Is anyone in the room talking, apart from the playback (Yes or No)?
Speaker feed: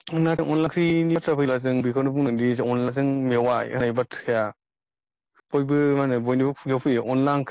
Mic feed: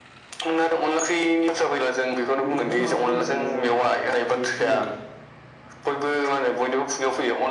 Yes